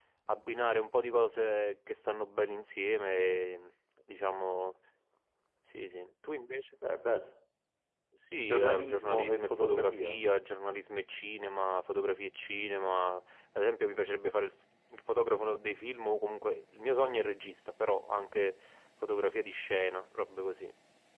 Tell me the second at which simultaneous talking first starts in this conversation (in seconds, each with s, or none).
8.5 s